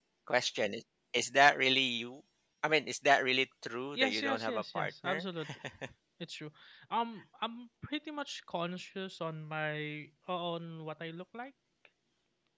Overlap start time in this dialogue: 4.0 s

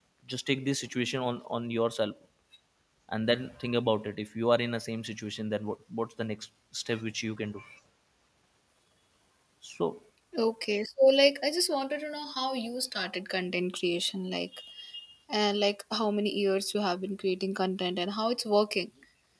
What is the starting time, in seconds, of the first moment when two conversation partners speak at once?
none

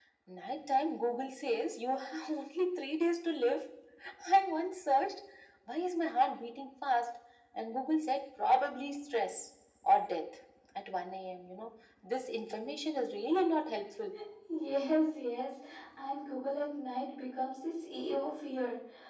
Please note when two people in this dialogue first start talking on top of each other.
none

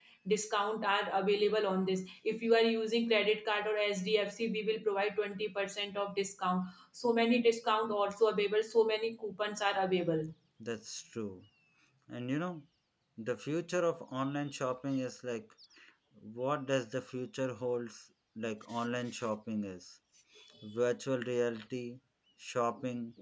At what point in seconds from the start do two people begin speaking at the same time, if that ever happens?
none

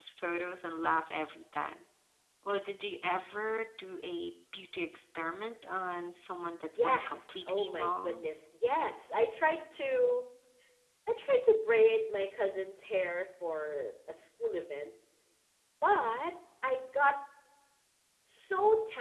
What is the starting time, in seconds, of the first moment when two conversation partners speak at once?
6.8 s

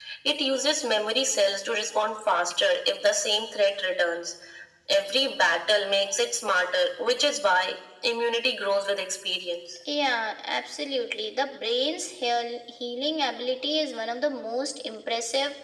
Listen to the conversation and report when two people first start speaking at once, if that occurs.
none

